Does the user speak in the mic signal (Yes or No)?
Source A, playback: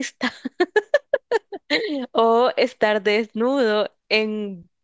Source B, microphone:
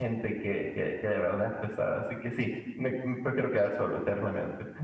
Yes